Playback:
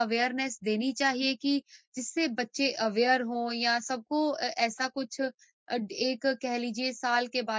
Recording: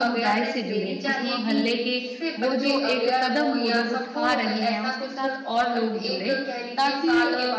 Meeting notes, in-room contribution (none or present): present